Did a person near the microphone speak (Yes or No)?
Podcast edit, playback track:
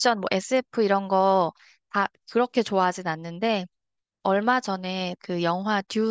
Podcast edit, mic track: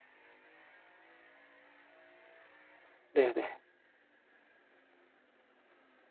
Yes